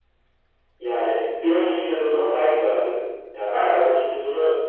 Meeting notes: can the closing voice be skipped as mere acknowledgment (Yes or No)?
Yes